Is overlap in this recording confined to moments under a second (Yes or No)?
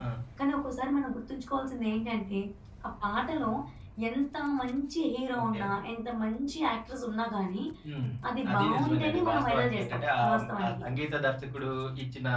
No